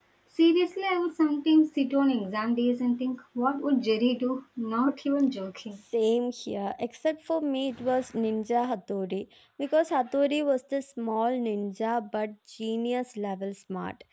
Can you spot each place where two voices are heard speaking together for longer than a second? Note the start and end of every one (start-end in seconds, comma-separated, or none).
none